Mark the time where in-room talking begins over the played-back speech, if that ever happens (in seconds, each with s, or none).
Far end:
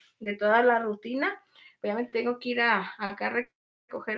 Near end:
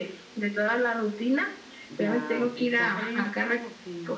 1.9 s